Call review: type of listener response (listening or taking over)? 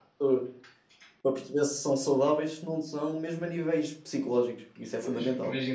taking over